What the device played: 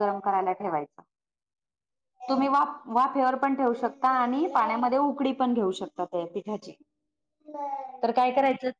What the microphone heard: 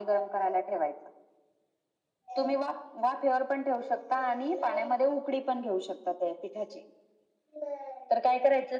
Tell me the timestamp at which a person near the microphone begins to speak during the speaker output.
none

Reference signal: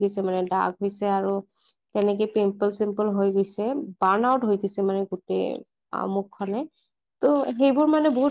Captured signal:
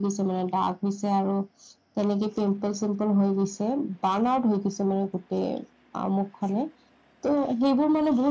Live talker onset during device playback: none

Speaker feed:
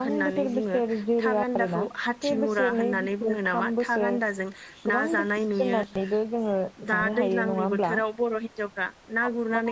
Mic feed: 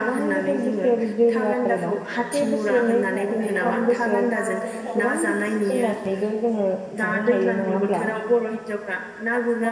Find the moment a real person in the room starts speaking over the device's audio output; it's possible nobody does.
3.2 s

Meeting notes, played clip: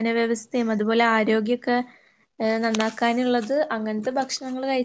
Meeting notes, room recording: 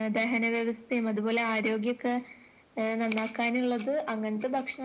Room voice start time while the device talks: none

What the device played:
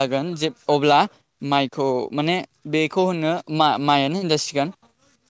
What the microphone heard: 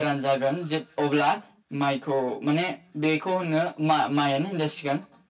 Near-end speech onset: none

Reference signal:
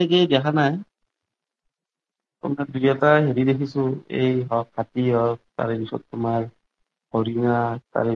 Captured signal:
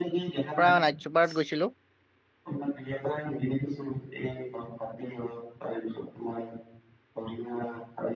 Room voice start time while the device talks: 0.6 s

